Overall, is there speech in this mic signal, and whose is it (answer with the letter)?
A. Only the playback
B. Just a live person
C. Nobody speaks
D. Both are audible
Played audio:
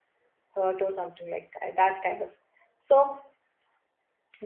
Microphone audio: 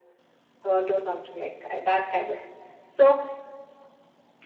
A